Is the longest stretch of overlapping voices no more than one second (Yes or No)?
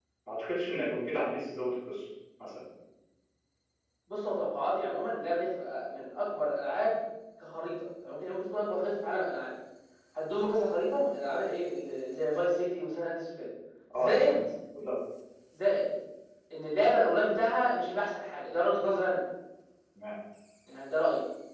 Yes